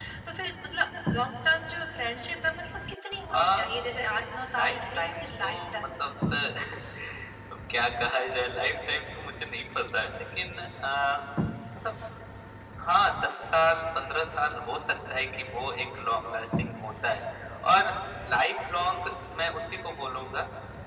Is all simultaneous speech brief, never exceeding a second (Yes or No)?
No